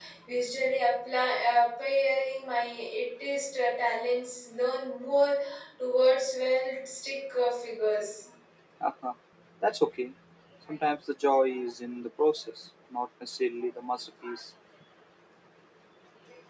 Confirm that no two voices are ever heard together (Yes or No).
Yes